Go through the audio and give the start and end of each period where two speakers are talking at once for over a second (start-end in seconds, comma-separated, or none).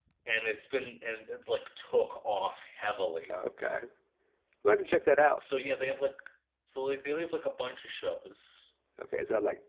none